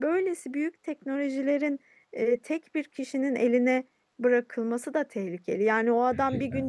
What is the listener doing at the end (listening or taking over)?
listening